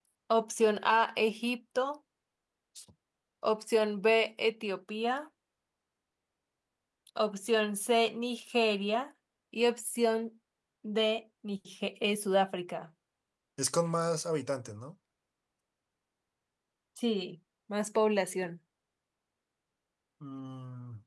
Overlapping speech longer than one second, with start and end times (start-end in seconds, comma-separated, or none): none